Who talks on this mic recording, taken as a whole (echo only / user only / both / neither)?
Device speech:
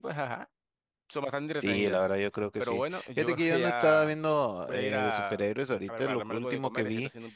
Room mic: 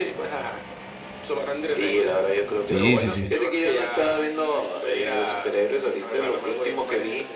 both